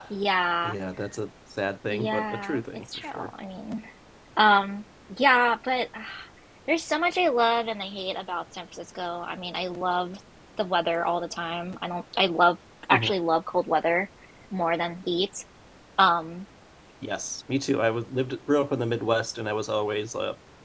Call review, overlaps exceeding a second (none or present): present